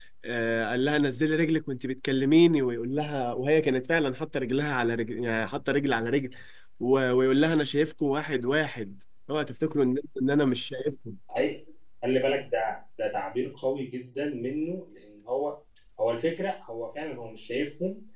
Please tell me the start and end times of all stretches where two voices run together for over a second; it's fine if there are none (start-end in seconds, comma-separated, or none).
none